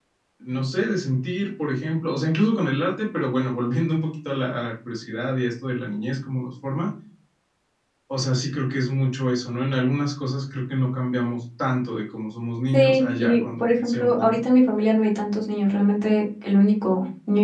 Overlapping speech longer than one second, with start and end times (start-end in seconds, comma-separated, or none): 12.7-14.4